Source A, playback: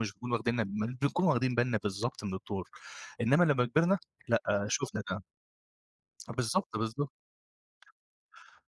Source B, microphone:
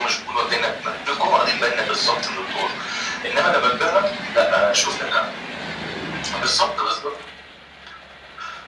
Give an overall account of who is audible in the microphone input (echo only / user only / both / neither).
echo only